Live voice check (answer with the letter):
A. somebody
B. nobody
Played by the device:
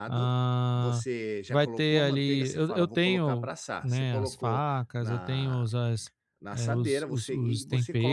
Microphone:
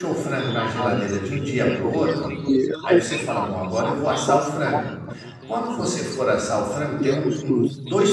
A